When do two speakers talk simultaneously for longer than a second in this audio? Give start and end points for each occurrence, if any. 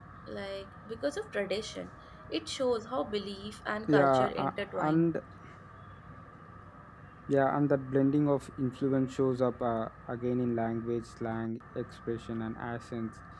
3.9-5.1

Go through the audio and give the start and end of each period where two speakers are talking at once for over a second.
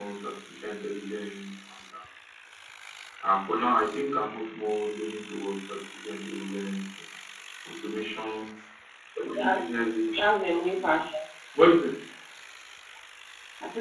none

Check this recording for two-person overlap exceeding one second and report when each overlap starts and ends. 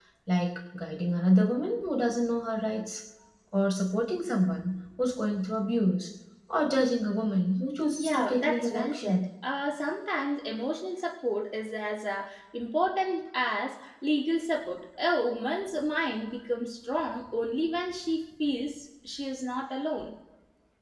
8.0-9.3

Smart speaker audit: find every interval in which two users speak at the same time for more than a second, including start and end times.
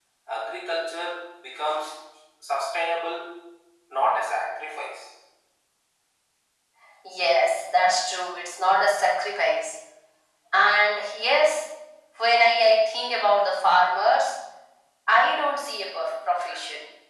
none

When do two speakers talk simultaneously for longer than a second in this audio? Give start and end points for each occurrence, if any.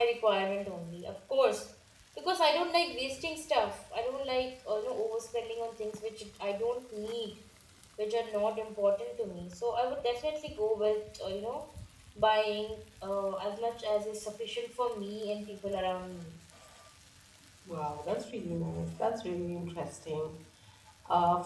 none

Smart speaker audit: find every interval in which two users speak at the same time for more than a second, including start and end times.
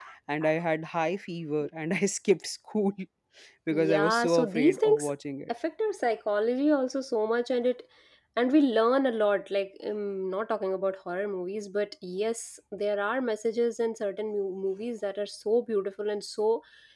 3.7-5.1

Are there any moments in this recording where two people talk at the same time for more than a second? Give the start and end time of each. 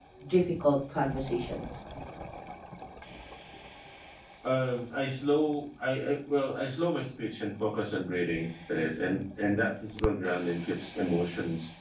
none

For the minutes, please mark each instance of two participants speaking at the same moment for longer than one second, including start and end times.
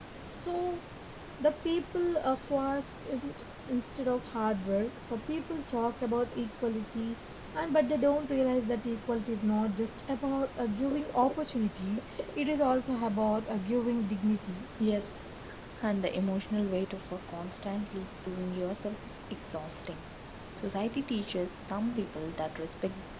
none

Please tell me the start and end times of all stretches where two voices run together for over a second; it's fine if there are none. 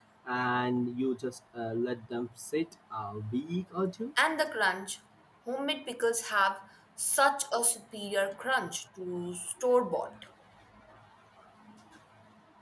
none

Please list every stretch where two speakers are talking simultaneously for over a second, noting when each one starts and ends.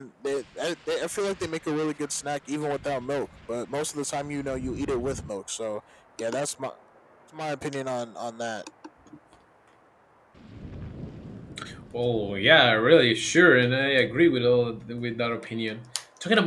none

